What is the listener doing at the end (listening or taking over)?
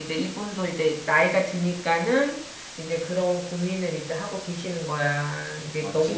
listening